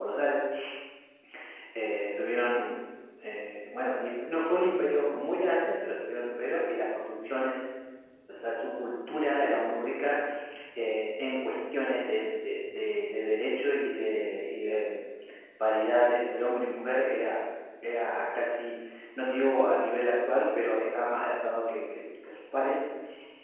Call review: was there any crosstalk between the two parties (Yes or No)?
No